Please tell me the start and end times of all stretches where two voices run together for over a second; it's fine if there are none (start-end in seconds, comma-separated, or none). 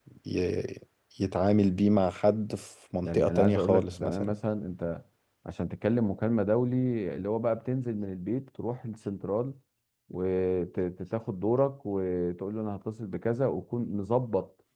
3.0-4.4